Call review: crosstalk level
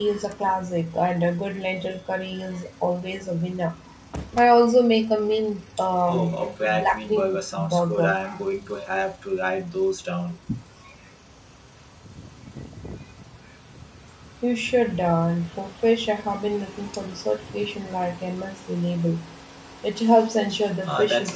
present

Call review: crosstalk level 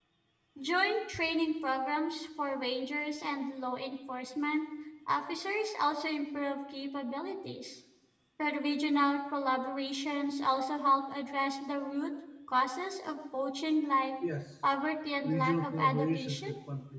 present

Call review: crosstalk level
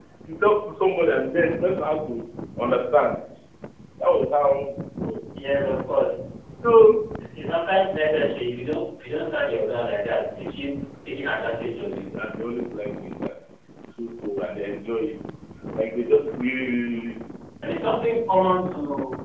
none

